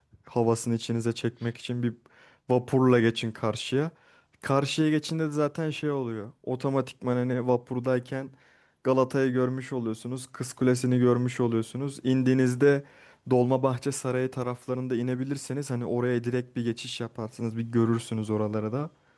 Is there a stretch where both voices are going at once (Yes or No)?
No